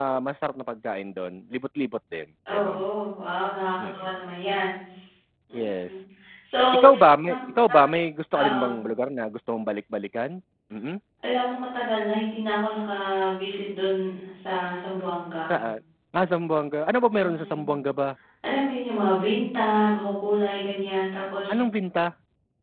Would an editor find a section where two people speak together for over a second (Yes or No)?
No